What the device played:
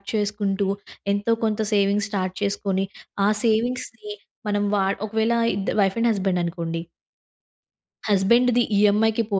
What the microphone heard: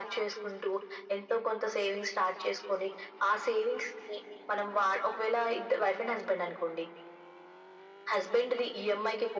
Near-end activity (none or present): none